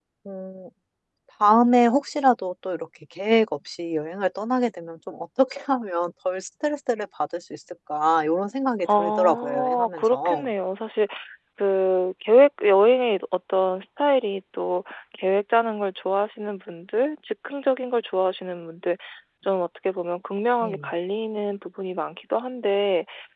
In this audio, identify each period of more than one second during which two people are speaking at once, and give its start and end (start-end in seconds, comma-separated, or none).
8.9-10.5